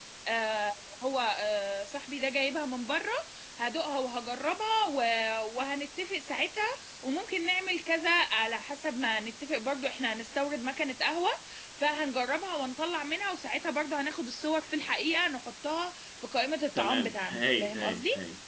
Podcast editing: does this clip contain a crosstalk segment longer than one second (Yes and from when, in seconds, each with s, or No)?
Yes, from 16.8 s